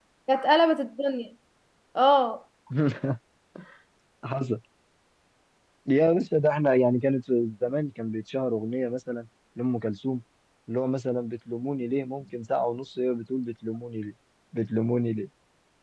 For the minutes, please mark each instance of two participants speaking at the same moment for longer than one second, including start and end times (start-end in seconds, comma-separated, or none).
none